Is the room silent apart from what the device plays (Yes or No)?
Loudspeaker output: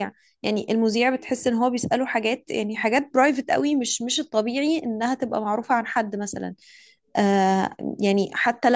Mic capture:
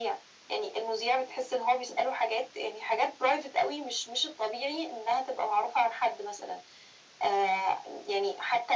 Yes